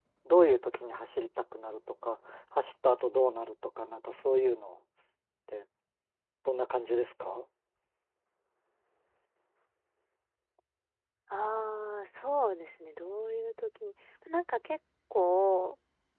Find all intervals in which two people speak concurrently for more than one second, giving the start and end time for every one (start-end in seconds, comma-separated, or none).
none